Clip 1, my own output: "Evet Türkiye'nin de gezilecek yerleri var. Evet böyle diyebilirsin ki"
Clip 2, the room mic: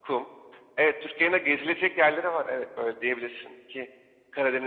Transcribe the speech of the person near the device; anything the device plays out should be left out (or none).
none